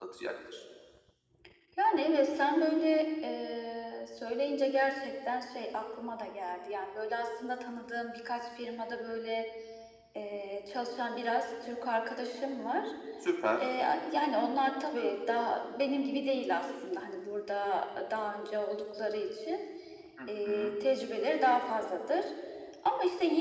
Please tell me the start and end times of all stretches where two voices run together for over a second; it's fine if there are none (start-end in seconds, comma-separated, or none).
none